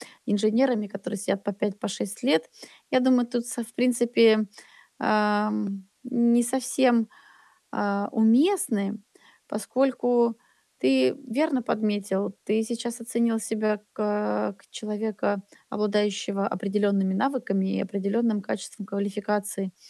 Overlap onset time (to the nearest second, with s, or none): none